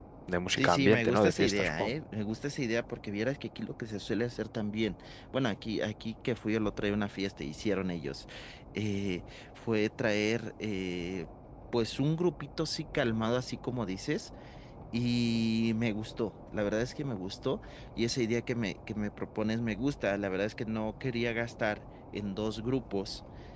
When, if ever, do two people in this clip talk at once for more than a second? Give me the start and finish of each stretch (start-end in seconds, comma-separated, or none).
0.6-1.9